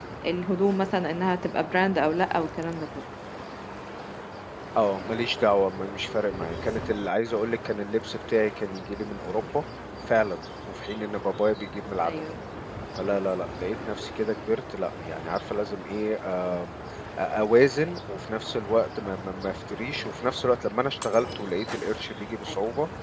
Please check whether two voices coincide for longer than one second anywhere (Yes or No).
No